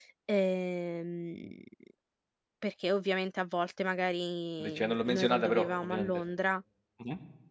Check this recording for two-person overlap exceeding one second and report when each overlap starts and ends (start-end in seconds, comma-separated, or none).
4.6-6.2